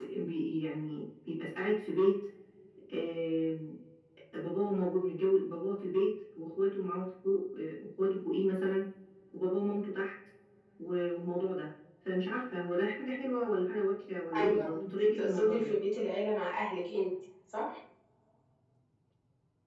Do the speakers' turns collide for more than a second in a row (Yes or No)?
Yes